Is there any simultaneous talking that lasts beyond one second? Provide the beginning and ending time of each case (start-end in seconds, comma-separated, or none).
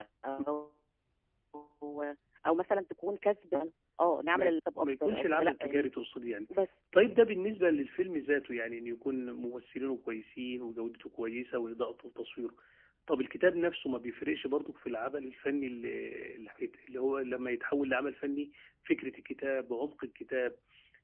4.3-5.9